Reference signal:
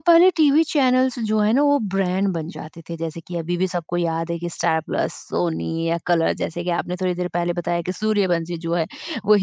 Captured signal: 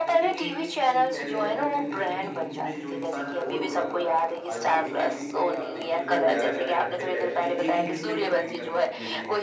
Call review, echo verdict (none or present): present